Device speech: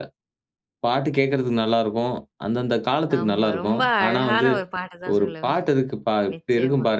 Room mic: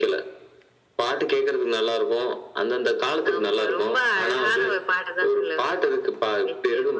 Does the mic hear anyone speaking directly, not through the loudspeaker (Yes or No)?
No